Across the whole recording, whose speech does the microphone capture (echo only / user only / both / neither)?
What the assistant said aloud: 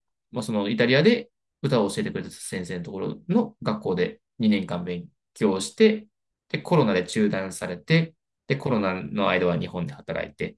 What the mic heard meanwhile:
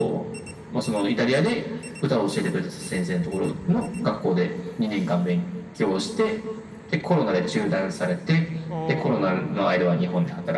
both